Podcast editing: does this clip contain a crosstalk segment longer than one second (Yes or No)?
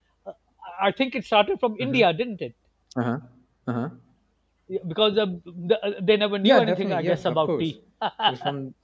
Yes